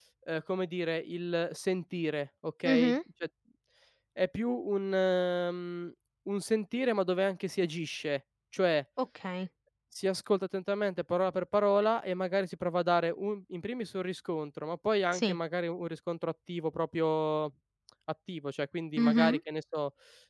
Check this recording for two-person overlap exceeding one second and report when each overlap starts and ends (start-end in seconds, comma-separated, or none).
none